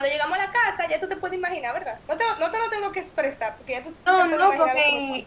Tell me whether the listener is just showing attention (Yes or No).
No